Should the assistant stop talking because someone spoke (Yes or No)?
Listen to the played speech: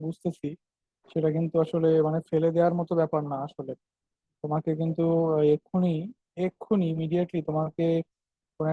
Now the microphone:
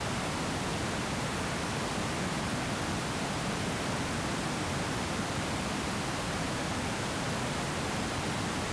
No